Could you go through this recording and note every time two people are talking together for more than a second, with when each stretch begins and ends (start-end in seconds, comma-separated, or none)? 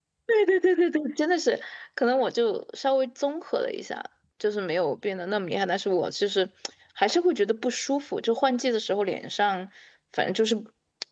none